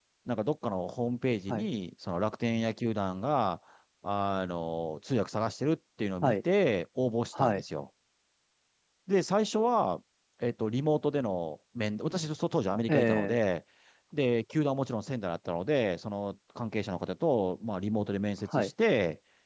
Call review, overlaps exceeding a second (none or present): none